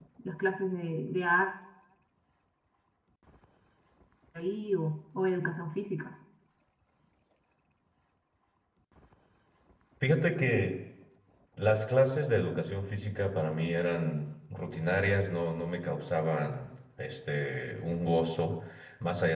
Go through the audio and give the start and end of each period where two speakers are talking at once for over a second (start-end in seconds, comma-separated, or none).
none